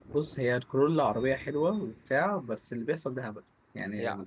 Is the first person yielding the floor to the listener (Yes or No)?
Yes